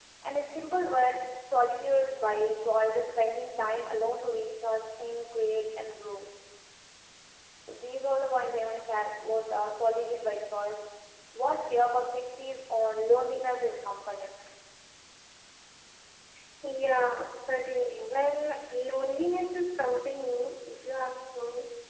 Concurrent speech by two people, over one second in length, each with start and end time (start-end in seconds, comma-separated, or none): none